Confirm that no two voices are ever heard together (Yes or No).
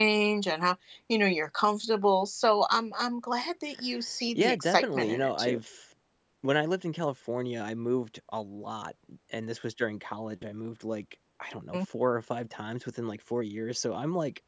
No